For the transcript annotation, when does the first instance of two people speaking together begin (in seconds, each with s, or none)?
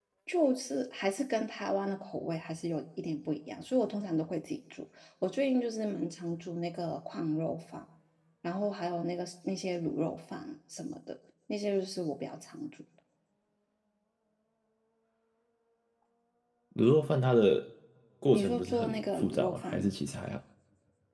18.3 s